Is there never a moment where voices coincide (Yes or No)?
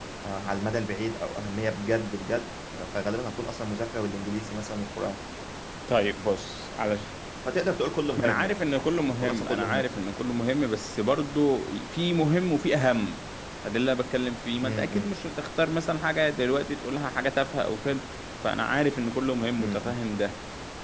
No